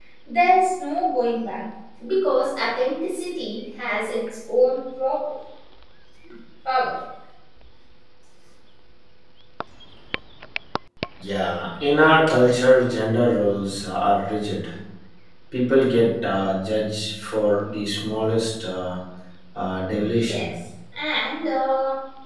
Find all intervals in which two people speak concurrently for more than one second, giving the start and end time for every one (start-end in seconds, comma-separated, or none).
none